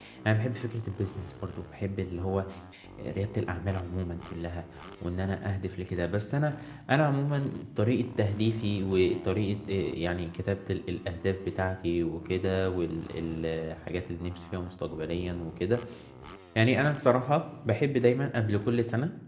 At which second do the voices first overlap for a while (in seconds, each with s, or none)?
none